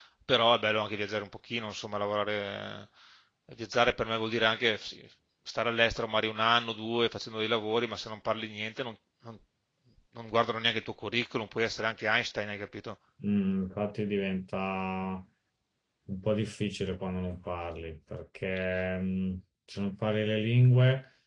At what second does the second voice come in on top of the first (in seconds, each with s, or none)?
none